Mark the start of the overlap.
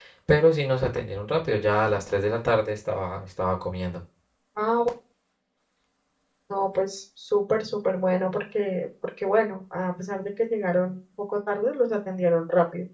none

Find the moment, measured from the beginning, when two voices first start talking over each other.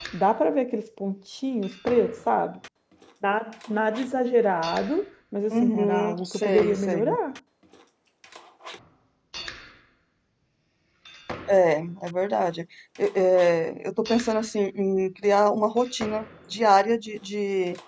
5.5 s

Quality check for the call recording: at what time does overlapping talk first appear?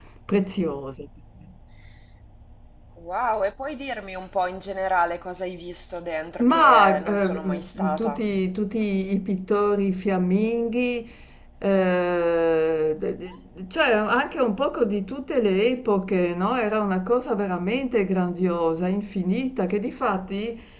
6.4 s

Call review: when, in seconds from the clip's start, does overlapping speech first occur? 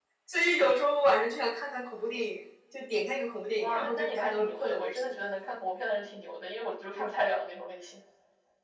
3.6 s

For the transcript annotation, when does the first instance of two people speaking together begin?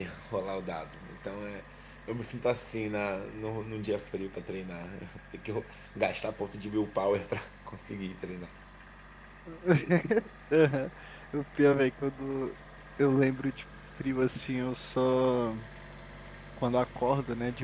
none

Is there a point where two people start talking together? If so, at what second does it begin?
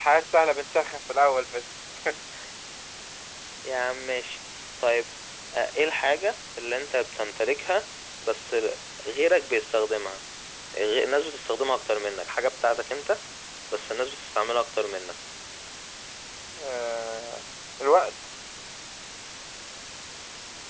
none

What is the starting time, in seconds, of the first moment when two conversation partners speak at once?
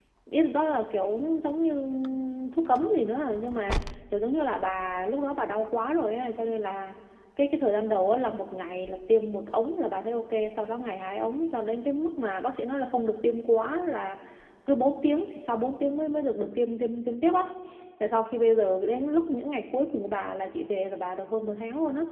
none

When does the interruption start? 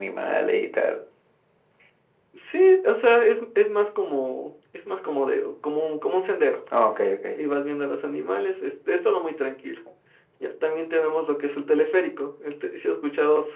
none

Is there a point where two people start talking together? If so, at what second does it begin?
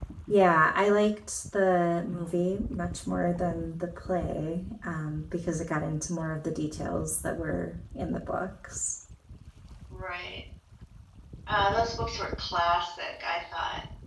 none

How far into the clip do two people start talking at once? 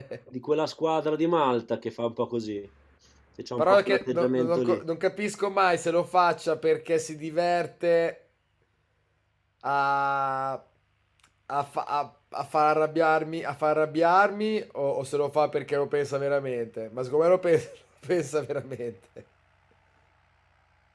3.6 s

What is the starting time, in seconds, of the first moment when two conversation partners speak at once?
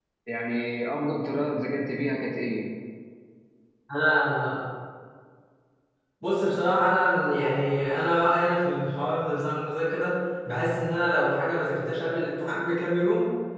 none

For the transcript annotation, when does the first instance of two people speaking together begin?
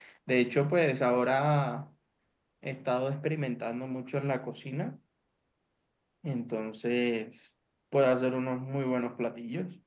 none

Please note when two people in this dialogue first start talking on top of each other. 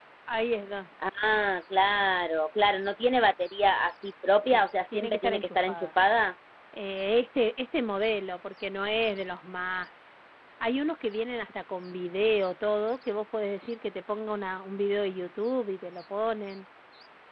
4.4 s

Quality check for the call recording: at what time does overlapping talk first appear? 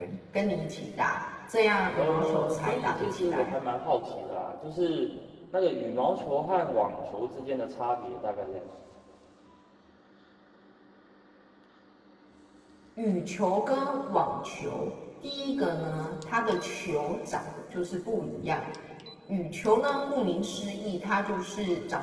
1.9 s

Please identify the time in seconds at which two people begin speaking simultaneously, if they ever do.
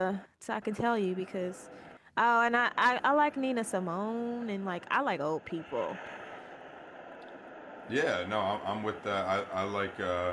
none

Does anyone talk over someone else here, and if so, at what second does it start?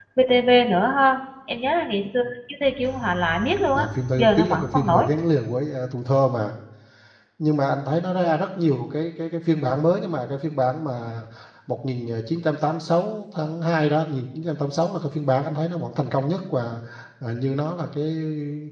3.8 s

